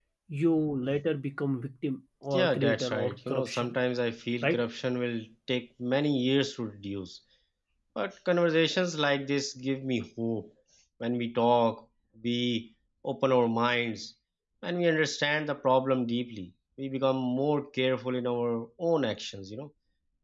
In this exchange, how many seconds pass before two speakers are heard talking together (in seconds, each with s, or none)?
2.3 s